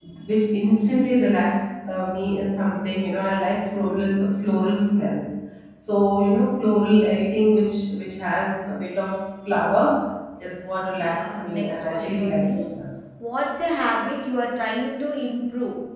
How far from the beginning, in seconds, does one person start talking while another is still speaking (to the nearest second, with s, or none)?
11 s